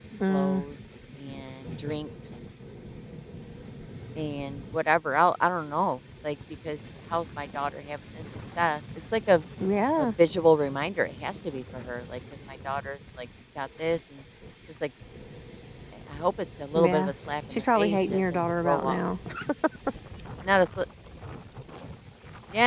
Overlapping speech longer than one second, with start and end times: 17.5-19.0

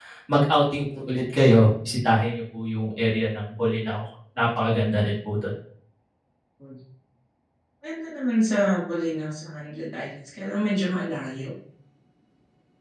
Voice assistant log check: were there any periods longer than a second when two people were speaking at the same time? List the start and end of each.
none

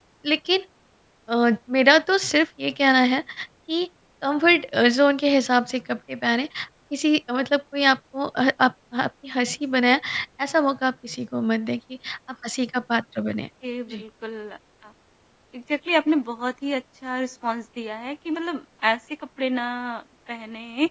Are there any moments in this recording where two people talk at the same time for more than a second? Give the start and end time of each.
none

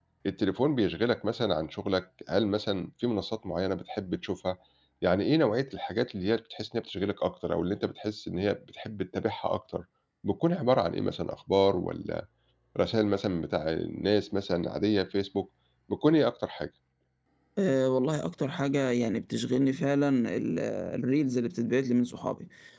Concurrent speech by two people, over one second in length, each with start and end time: none

